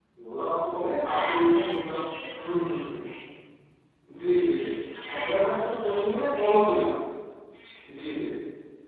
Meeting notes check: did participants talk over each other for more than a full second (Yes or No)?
Yes